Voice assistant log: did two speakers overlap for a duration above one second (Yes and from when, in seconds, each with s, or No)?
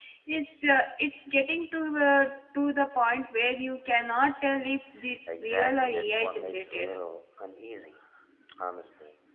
Yes, from 5.3 s